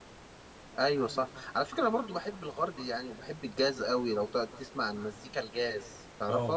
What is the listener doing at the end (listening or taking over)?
taking over